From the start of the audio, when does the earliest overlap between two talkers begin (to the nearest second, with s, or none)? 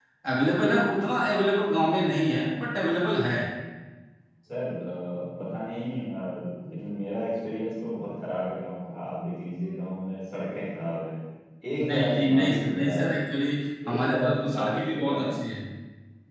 12 s